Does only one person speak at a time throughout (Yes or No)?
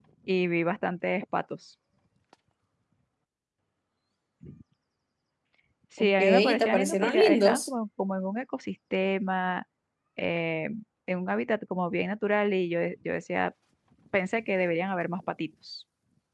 No